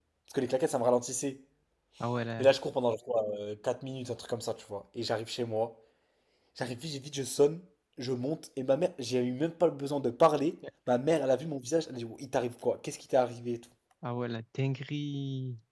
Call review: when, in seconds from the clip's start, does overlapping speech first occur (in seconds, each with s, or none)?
none